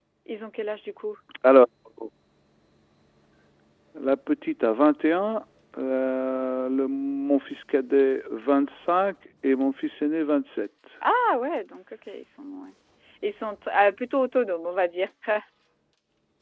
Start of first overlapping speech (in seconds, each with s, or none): none